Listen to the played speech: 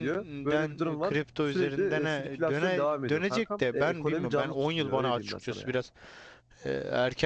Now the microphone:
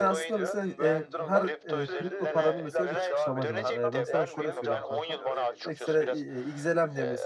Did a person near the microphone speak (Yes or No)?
Yes